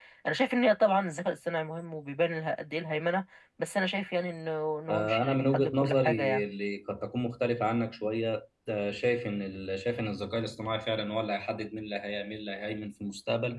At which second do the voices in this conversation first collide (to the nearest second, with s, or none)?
5 s